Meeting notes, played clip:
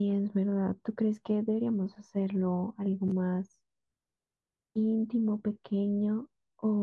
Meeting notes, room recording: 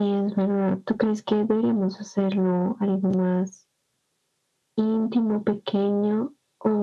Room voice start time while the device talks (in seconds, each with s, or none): none